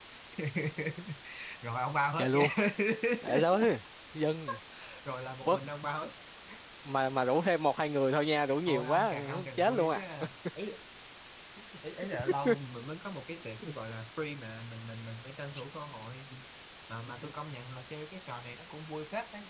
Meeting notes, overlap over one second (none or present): present